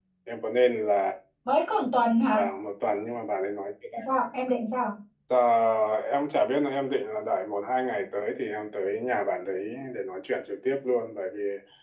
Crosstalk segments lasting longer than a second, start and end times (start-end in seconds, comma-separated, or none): none